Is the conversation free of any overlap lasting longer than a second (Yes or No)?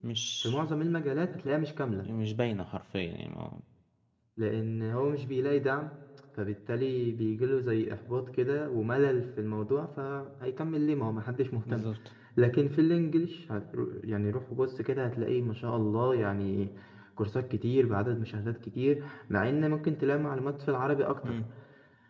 Yes